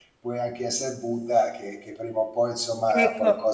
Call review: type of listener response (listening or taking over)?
taking over